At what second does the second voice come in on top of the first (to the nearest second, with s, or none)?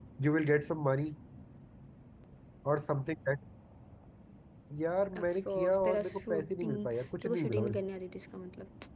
5 s